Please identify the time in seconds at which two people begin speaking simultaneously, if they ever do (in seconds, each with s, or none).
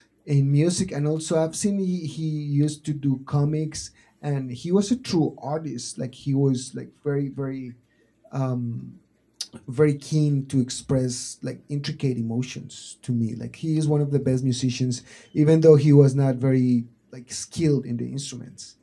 none